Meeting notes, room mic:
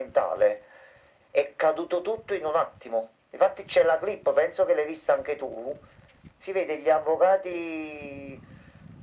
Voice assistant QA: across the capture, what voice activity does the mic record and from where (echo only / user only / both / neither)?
echo only